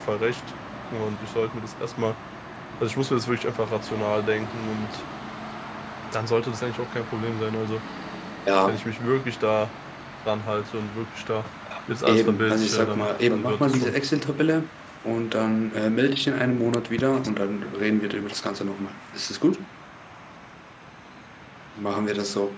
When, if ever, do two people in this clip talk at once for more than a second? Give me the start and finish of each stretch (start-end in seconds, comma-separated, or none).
12.1-13.9